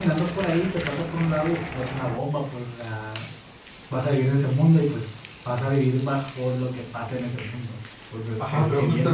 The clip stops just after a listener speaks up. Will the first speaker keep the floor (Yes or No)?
No